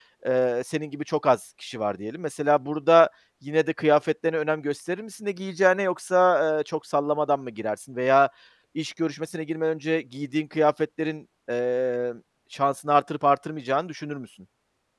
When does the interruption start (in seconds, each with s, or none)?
none